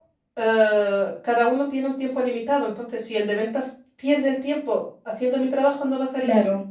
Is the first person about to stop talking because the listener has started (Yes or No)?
Yes